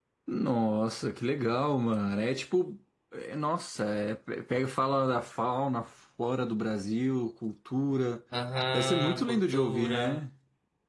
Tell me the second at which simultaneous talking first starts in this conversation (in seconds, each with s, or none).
8.7 s